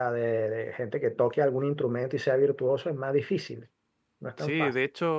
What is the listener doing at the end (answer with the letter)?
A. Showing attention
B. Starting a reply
B